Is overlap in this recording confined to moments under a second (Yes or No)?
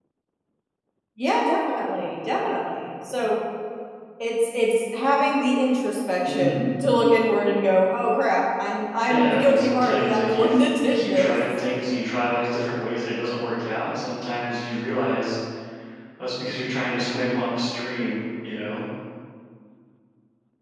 No